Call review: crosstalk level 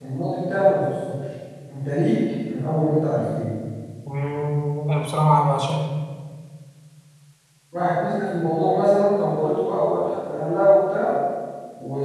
none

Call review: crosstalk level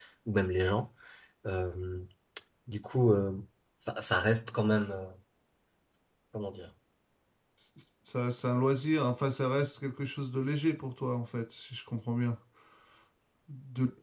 none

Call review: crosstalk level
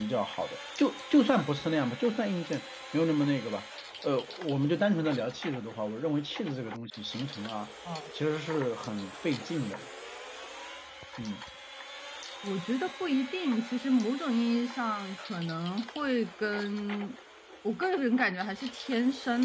none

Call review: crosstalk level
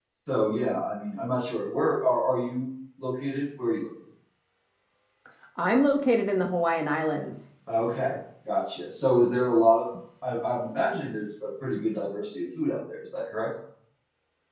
none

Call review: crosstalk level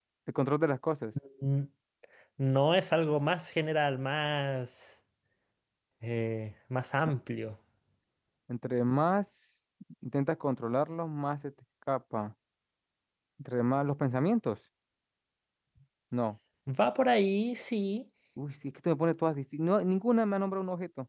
none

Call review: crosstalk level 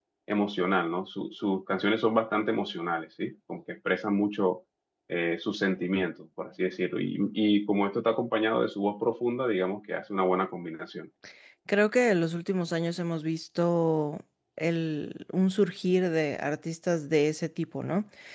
none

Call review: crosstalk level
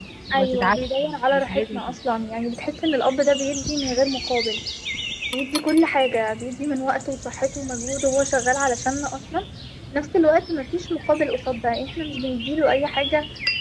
present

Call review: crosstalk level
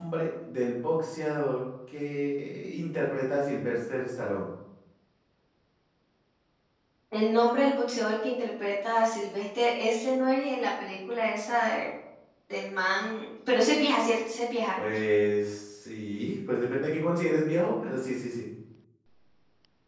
none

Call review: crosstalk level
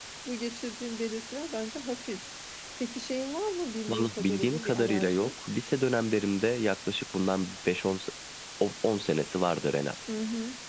present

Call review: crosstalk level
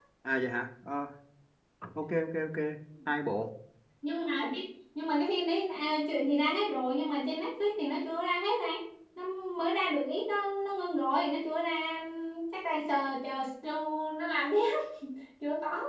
none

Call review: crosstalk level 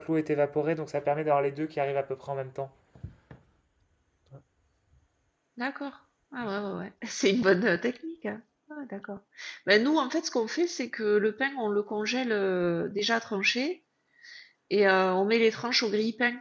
none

